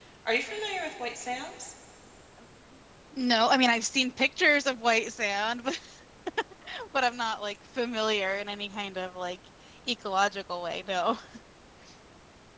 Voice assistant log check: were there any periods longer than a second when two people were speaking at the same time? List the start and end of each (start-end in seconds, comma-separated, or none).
none